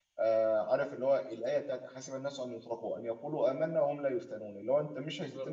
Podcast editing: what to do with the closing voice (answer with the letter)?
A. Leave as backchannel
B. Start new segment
A